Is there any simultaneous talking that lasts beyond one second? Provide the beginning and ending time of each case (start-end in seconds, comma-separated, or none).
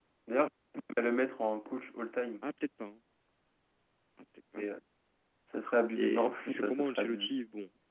5.9-7.3